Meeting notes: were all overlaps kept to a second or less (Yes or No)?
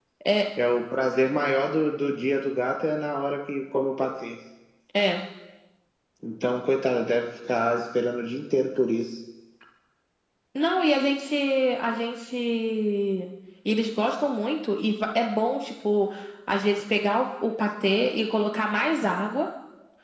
Yes